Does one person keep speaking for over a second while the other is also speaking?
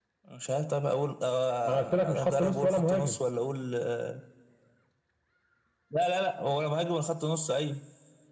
Yes, from 1.7 s

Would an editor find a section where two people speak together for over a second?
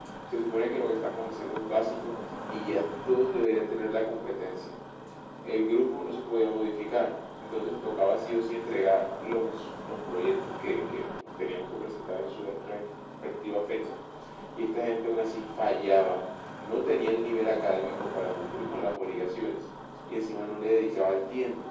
No

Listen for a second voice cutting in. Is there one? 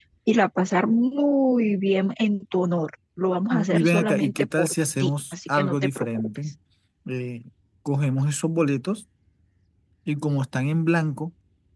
Yes, from 3.5 s

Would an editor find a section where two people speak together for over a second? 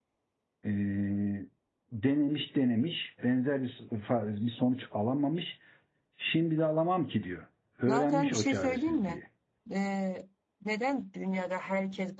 Yes, from 7.9 s

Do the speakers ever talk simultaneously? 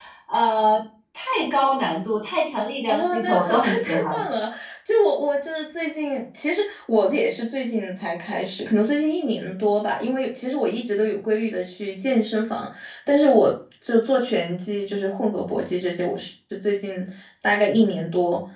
Yes, from 2.9 s

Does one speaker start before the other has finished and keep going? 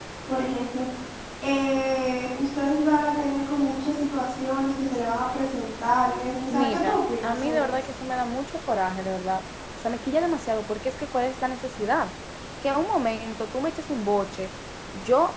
Yes, from 6.5 s

